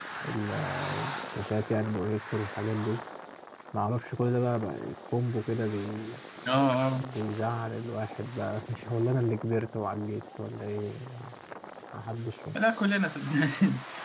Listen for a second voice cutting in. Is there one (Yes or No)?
No